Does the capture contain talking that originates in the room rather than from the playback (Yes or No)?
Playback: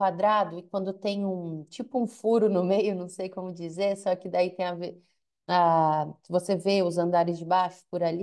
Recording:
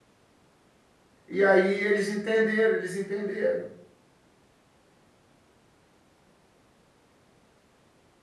Yes